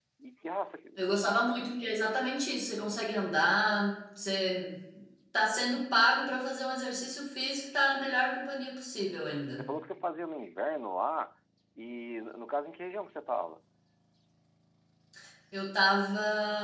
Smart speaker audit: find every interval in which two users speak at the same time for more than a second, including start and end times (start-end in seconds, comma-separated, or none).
none